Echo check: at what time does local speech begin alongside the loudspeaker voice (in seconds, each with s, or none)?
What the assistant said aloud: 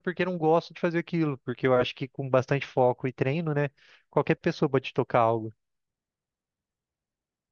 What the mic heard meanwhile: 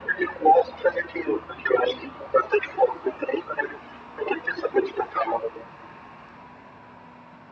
none